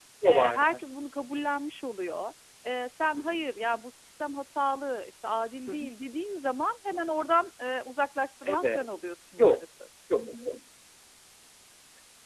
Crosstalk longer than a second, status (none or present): none